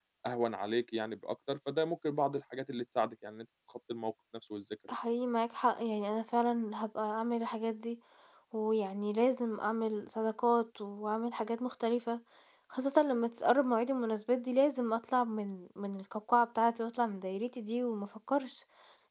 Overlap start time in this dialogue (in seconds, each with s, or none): none